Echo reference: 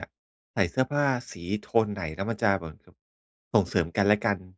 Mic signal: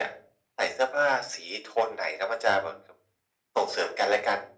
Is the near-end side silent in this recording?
Yes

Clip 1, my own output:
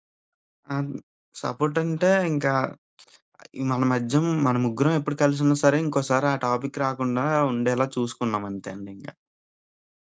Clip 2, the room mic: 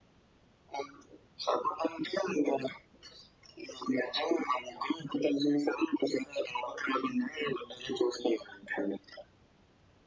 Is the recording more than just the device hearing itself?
No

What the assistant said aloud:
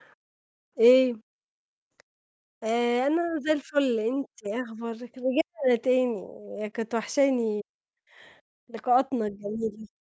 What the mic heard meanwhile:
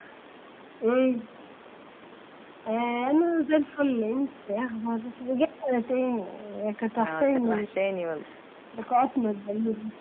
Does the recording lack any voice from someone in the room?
No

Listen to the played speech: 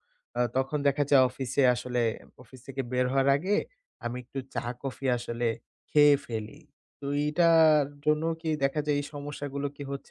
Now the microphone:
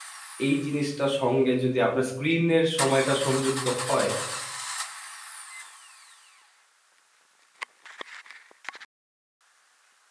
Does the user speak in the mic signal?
Yes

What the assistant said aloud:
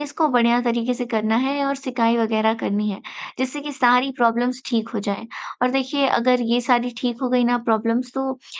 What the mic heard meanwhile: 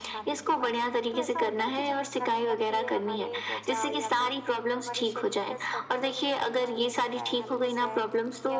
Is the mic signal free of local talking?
No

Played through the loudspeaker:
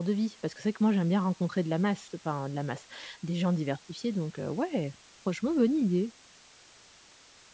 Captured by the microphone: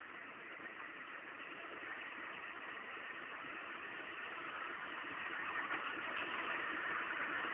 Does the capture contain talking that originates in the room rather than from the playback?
No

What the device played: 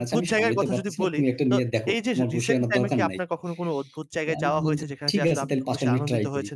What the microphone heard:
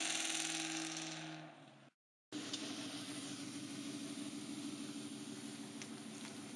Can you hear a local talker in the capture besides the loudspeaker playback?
No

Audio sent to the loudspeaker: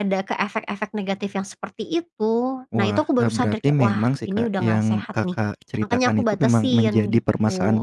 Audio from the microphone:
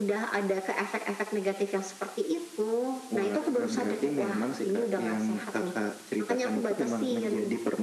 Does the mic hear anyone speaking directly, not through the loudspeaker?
Yes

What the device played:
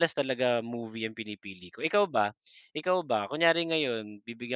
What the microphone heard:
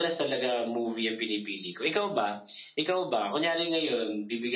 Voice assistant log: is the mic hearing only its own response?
Yes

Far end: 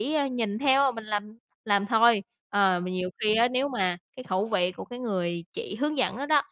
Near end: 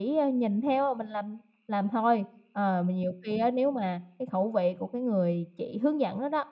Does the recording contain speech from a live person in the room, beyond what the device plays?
No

